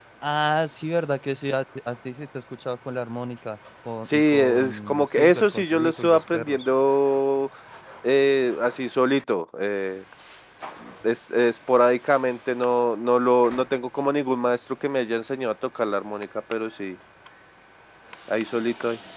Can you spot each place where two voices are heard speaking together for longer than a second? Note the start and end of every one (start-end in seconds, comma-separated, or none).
4.1-6.7